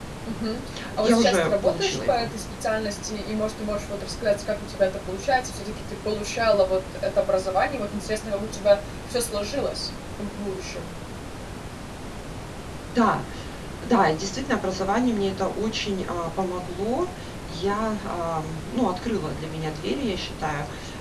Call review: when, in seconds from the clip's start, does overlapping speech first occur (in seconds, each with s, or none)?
1.0 s